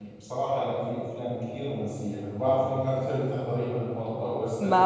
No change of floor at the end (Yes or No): No